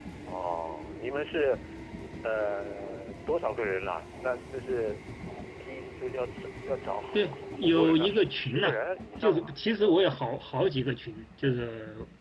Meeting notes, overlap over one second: present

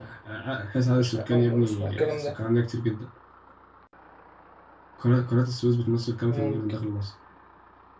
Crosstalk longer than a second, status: present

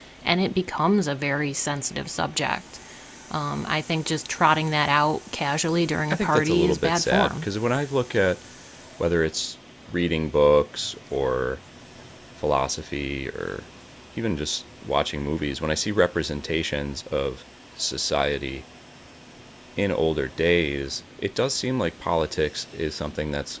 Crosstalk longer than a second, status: present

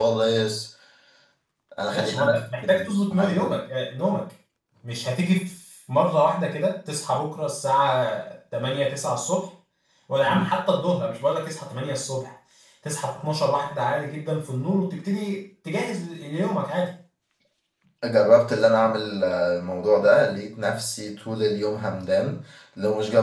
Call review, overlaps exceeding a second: present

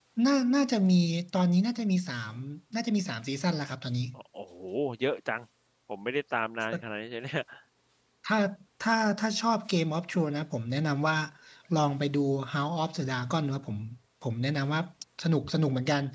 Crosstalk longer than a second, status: none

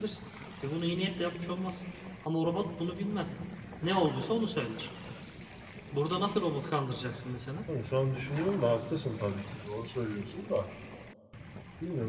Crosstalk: none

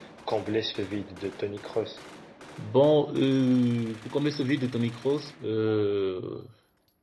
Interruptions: none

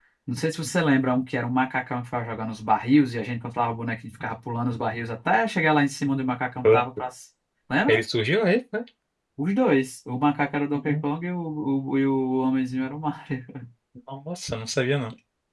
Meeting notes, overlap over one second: none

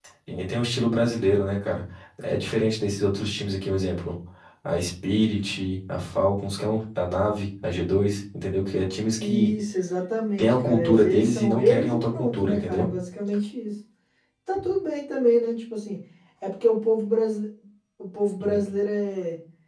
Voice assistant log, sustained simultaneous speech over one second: present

